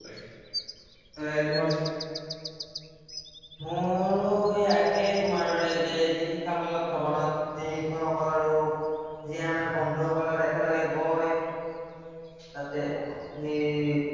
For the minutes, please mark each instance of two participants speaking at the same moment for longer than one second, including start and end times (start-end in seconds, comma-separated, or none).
none